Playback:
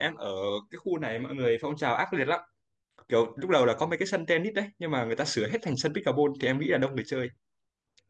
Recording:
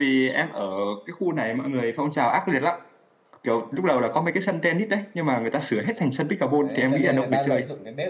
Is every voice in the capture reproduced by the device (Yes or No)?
No